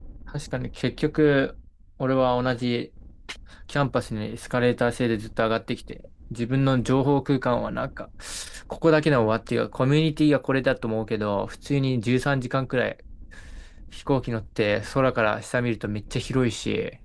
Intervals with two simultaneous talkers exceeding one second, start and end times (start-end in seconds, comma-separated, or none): none